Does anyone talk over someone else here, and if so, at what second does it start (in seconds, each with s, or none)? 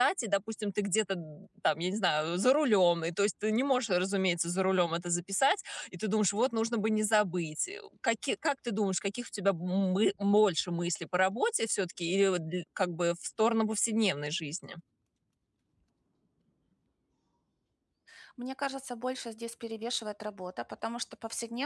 none